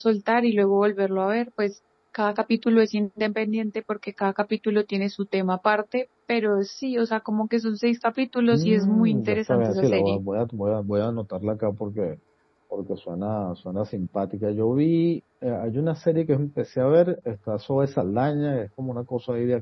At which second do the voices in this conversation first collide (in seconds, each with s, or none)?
8.5 s